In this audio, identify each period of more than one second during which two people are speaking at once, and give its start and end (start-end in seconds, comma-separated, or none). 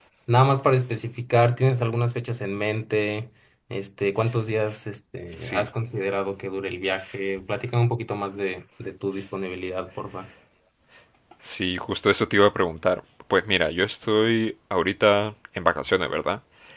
none